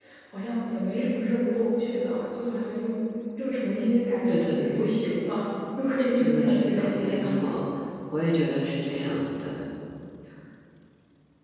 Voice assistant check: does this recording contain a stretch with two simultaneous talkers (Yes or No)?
Yes